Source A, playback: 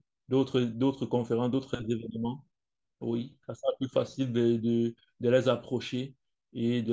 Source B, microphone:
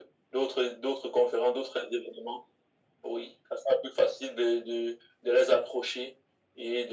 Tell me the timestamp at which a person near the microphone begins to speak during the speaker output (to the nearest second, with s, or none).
none